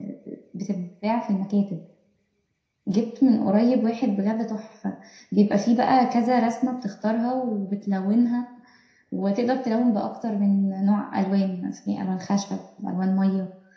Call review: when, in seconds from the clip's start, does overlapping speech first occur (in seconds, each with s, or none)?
none